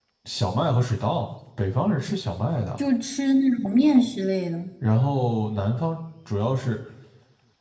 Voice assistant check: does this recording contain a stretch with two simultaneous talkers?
No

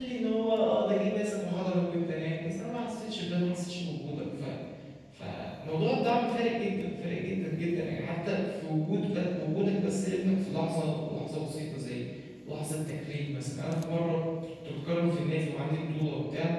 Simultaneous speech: No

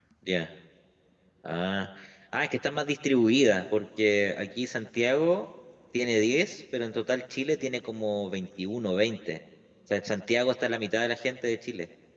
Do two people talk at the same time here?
No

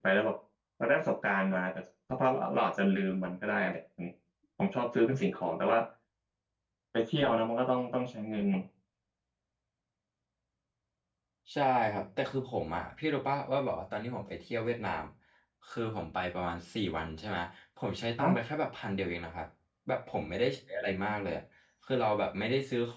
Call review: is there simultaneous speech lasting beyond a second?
No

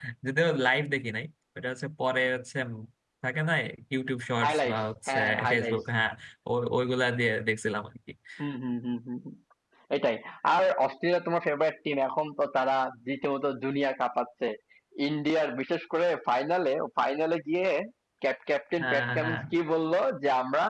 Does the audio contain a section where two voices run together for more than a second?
Yes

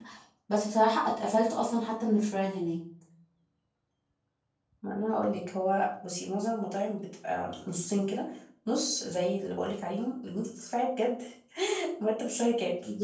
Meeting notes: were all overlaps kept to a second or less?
Yes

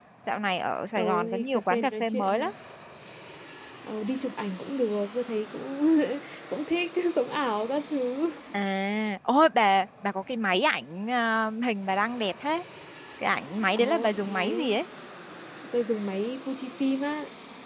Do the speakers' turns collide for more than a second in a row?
Yes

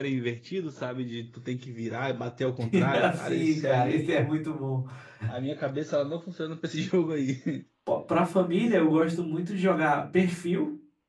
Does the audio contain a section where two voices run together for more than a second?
Yes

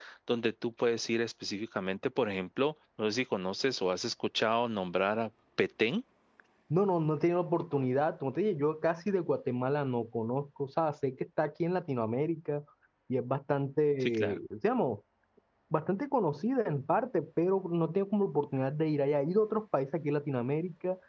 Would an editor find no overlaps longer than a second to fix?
Yes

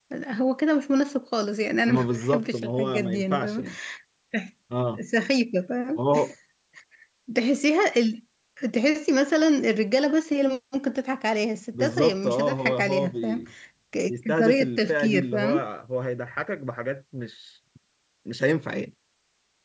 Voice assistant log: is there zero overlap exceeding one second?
No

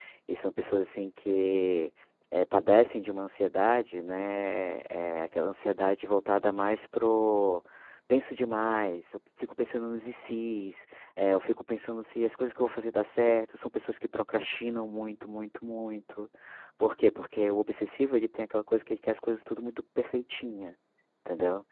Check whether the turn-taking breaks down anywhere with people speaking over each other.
No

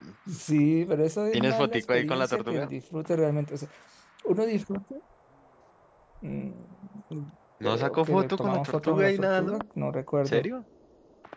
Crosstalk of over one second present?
Yes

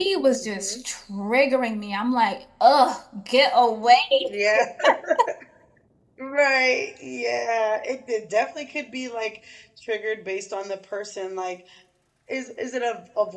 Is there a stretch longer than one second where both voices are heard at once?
No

